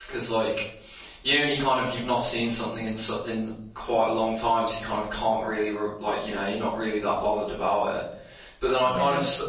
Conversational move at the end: listening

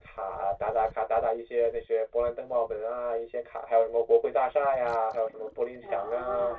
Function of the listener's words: taking over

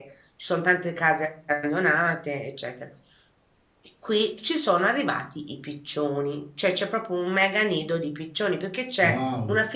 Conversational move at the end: listening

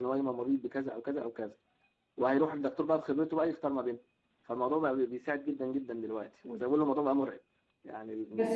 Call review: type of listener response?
taking over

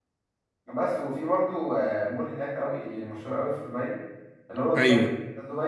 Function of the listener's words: listening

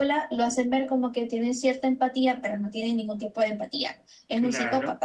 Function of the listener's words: taking over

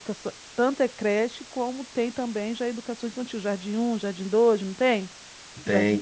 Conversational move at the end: taking over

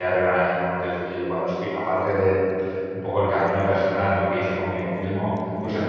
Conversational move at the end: listening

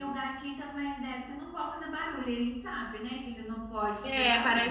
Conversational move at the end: taking over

